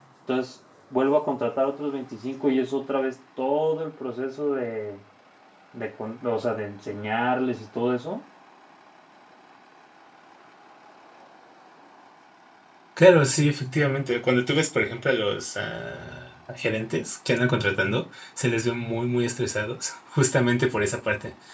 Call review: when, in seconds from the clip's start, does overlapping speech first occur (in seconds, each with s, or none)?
none